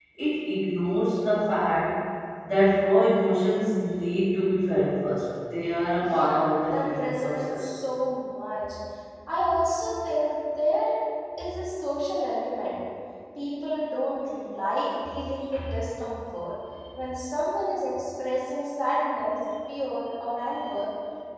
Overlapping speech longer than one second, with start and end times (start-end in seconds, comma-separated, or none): 6.0-7.7